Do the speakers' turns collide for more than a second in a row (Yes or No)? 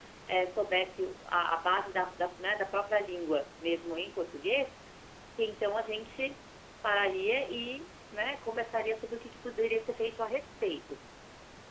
No